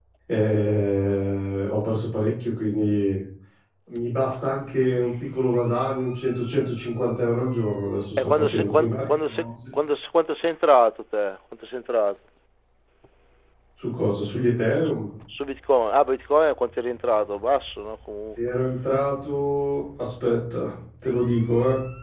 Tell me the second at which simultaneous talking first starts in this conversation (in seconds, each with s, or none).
8.2 s